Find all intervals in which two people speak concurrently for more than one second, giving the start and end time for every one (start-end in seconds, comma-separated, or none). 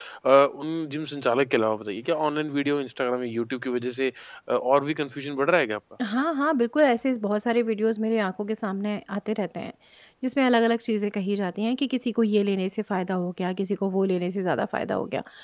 none